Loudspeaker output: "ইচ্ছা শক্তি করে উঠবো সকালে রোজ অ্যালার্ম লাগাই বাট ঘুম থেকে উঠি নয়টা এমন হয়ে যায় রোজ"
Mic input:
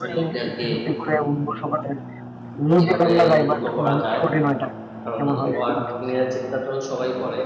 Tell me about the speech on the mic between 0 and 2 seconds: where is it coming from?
both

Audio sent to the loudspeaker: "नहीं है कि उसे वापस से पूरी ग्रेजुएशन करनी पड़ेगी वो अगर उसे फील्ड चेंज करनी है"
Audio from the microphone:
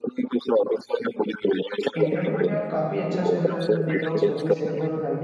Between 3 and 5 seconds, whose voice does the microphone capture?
both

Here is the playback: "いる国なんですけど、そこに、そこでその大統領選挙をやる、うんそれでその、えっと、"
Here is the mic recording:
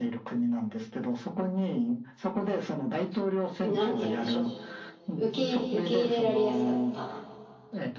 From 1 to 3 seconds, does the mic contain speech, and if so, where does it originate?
echo only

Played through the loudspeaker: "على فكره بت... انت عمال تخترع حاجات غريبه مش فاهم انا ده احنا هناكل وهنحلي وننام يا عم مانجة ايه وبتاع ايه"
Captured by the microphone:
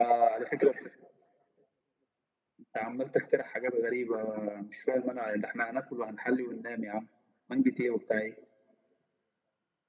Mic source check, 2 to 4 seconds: echo only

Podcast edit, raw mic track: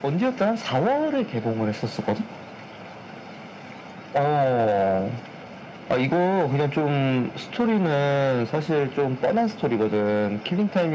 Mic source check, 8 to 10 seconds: echo only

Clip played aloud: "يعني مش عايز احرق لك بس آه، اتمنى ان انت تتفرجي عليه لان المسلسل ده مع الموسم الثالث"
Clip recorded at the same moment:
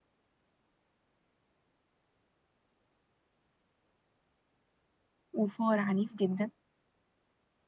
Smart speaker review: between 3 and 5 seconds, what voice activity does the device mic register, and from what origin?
neither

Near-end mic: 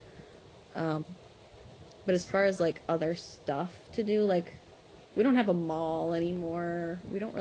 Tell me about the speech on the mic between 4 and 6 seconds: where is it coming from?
user only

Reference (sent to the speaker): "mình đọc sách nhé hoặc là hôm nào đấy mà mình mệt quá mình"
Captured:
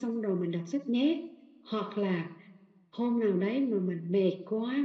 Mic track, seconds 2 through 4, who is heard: echo only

